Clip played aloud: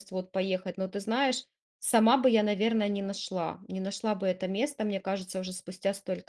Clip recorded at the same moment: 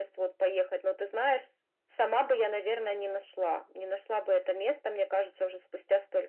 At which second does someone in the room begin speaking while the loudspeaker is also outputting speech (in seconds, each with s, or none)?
none